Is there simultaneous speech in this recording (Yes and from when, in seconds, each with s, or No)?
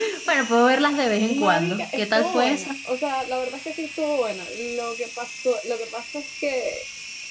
Yes, from 1.2 s